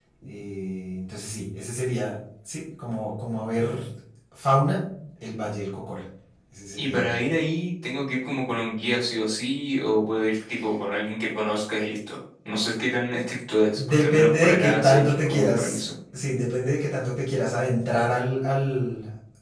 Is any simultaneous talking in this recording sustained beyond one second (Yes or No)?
Yes